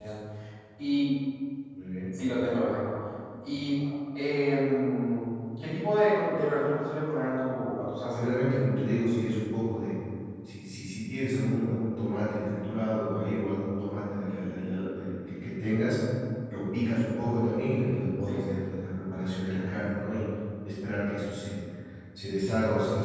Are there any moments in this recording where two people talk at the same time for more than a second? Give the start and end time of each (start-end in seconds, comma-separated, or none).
none